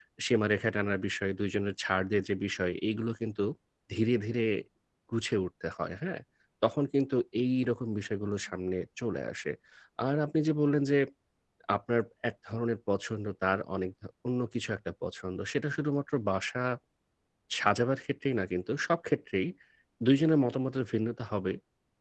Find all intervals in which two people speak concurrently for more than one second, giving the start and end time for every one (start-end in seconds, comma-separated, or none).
none